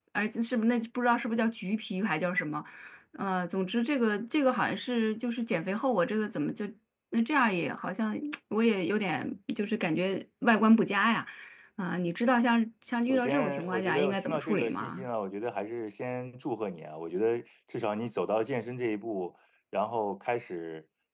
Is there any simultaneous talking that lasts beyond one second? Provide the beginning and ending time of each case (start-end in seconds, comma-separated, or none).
13.1-15.0